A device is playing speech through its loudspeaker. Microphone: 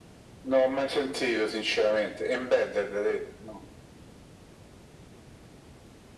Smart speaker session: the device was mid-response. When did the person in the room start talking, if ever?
none

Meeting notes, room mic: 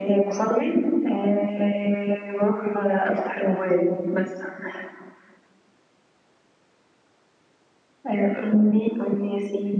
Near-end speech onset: none

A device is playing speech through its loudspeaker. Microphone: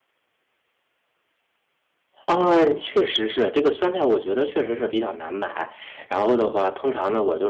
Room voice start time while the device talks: 2.3 s

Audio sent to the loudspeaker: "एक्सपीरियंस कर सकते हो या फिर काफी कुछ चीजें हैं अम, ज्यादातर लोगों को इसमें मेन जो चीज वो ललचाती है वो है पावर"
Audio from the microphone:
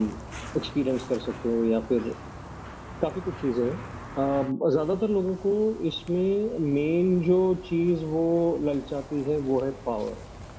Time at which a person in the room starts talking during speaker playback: none

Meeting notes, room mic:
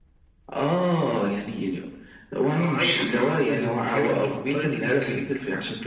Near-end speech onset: none

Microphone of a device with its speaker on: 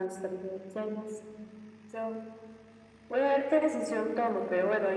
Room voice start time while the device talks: none

